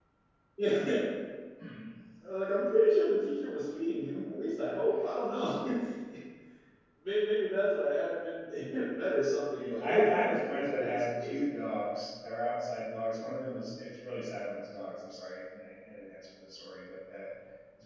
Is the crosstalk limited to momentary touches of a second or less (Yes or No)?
No